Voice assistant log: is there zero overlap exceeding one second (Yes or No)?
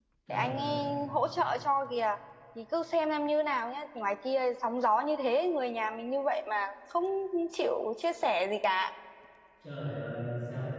Yes